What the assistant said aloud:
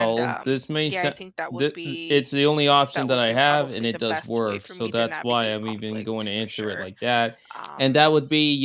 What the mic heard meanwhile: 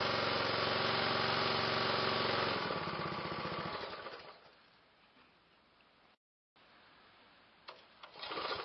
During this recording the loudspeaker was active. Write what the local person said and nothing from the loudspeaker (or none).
none